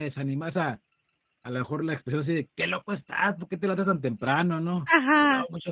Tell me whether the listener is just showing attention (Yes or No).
Yes